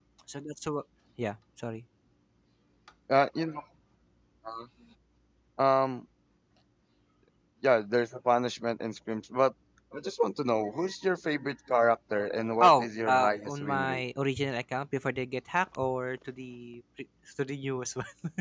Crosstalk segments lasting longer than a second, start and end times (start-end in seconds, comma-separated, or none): 12.6-14.0